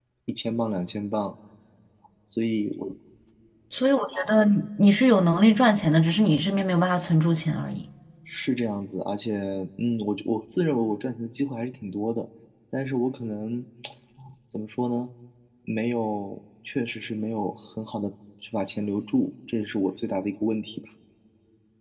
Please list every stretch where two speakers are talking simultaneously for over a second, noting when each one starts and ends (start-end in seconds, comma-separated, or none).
none